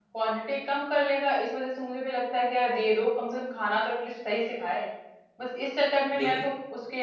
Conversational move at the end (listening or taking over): listening